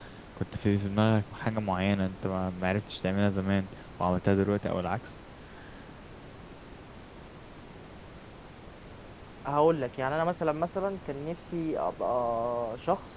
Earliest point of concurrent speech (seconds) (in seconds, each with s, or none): none